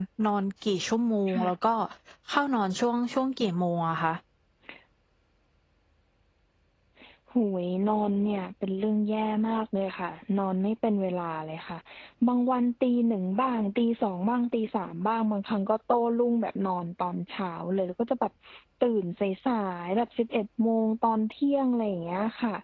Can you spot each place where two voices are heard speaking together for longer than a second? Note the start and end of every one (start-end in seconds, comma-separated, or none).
none